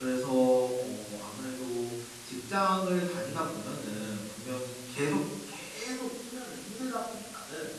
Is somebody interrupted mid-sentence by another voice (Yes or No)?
No